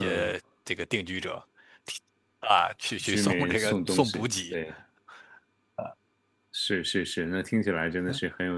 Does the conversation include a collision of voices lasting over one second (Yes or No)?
Yes